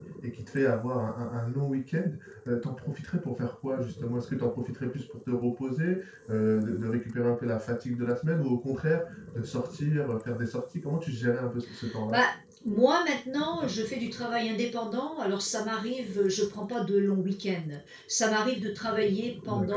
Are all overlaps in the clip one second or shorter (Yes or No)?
Yes